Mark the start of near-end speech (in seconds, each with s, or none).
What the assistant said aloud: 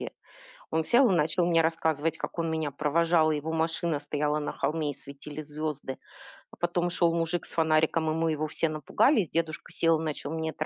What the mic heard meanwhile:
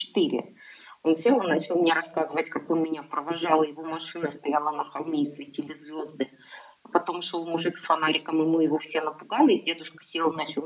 none